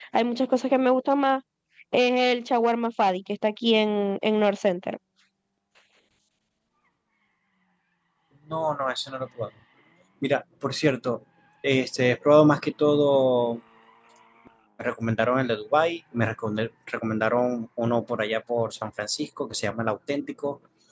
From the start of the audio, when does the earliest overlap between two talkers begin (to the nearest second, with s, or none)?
none